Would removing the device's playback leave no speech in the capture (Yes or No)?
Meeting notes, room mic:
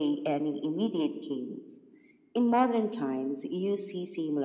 Yes